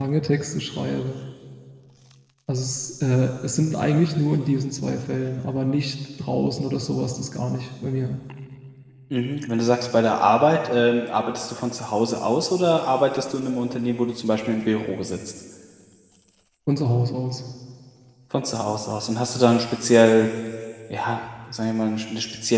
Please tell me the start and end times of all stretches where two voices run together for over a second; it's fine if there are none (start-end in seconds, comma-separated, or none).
none